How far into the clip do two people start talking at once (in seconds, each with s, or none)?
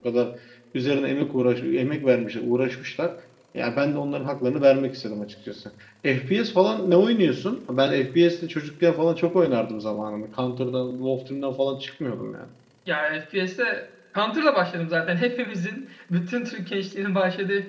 none